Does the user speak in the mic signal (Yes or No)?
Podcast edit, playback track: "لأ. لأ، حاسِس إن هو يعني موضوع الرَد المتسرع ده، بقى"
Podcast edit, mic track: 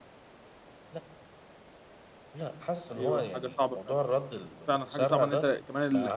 Yes